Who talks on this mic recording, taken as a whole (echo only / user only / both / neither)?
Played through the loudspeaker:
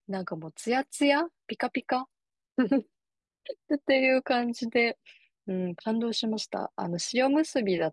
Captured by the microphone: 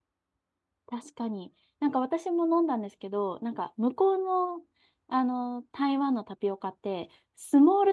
user only